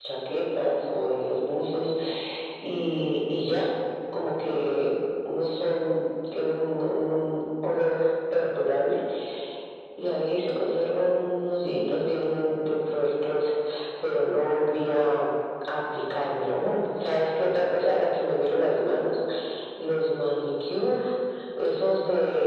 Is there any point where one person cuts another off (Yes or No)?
No